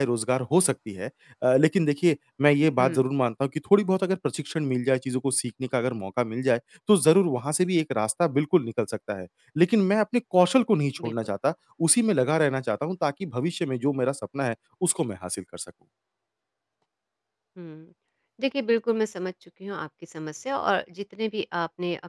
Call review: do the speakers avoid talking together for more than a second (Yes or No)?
Yes